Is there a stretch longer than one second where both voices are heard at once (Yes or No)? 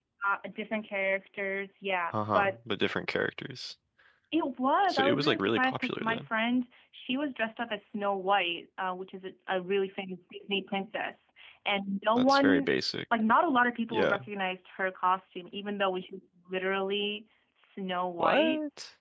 Yes